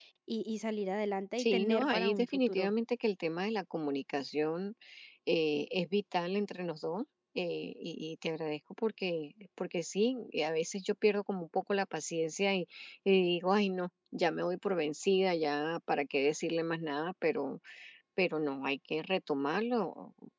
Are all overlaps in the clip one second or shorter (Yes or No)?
No